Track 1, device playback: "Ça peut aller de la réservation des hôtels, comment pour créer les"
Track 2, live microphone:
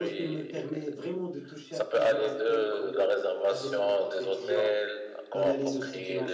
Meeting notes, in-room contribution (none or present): present